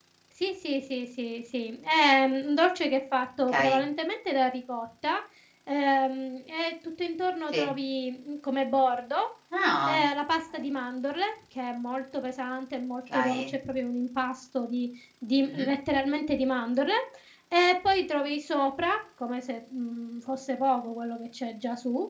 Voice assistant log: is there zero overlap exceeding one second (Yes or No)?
Yes